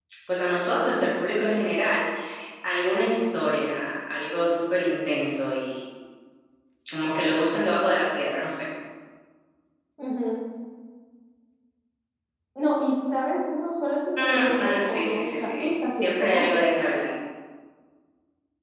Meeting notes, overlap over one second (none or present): present